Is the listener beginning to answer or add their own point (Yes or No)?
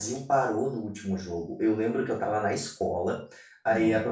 No